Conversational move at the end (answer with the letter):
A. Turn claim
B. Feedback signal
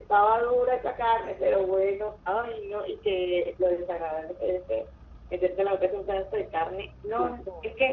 B